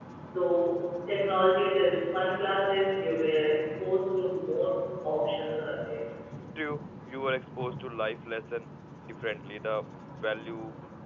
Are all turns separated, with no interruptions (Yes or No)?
Yes